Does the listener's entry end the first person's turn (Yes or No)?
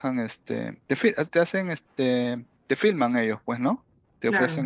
No